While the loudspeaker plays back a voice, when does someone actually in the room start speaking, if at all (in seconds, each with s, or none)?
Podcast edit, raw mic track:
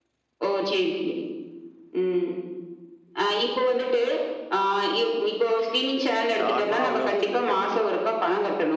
6.4 s